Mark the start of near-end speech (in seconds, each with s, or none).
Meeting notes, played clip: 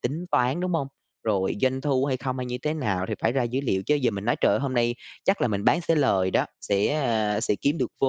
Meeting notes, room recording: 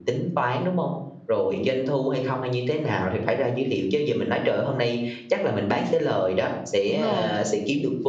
6.8 s